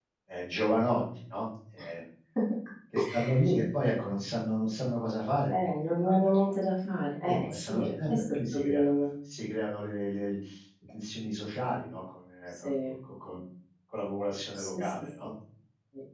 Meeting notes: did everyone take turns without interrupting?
No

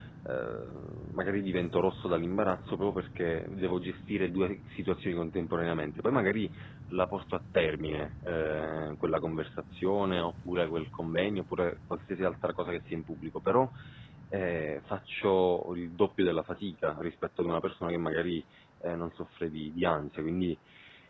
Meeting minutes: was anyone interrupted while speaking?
No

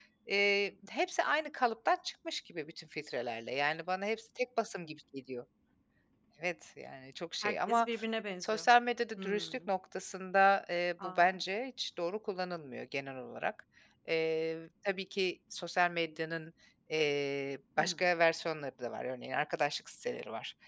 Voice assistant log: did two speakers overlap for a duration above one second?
No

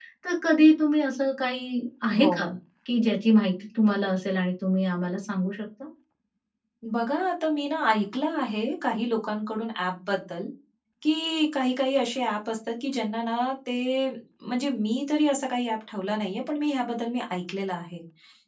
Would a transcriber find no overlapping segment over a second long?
Yes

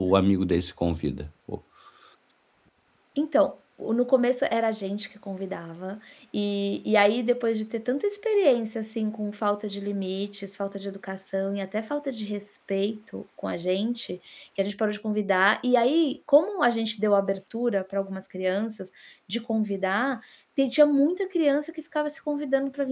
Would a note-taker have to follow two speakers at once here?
No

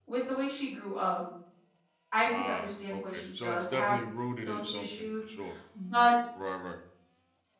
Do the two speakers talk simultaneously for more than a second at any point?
Yes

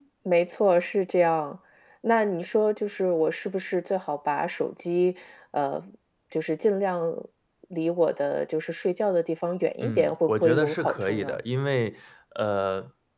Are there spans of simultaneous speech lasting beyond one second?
Yes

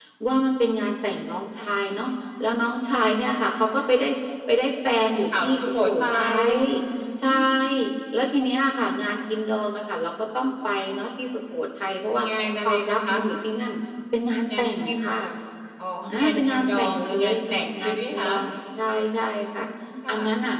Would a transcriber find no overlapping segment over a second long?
No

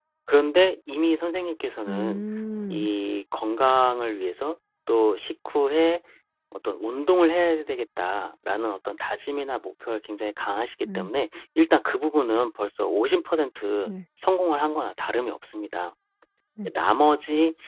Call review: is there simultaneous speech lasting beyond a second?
No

